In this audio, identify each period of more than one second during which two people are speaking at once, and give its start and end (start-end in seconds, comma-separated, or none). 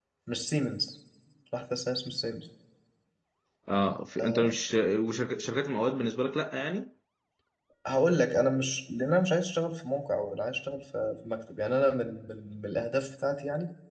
none